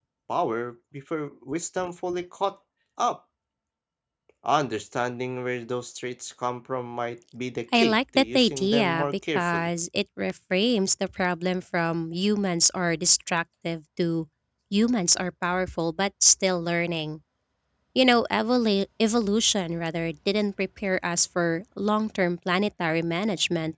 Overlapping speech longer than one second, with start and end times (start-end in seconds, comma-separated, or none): 7.7-9.7